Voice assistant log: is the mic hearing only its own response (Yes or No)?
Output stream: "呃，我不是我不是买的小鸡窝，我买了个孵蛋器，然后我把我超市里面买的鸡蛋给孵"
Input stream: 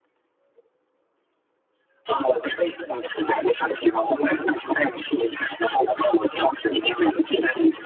Yes